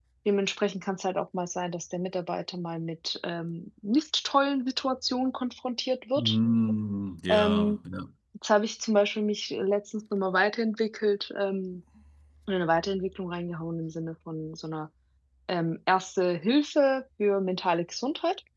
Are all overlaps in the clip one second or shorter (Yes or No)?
Yes